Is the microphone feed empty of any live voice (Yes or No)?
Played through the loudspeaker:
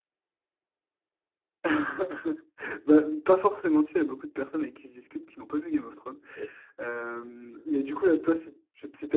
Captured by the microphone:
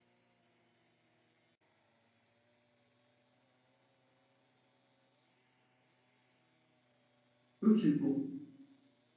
No